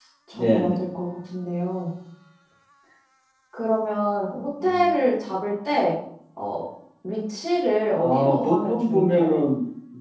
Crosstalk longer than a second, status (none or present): present